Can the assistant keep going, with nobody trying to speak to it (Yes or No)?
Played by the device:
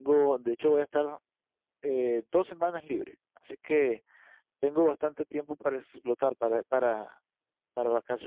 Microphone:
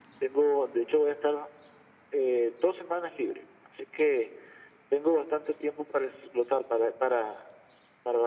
Yes